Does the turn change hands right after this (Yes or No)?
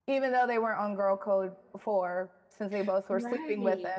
Yes